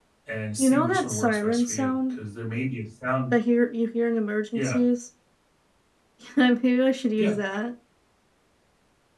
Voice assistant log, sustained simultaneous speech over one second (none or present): present